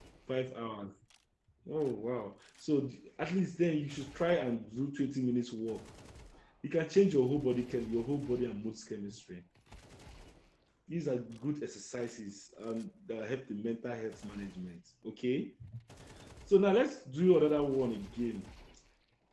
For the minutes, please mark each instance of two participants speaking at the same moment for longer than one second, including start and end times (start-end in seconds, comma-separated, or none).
none